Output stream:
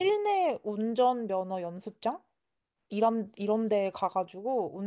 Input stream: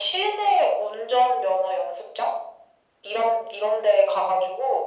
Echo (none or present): present